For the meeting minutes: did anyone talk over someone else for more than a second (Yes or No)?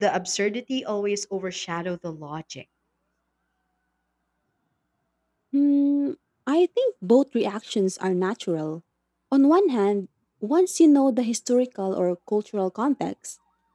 No